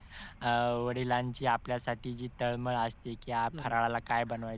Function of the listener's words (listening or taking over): listening